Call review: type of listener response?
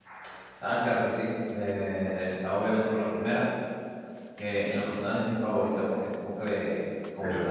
listening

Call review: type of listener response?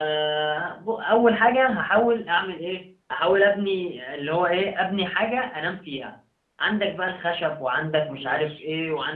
listening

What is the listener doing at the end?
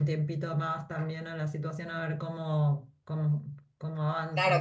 taking over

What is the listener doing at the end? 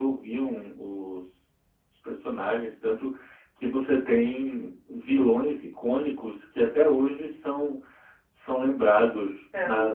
listening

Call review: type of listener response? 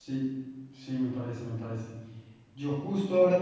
listening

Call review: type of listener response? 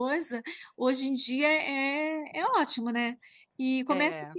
listening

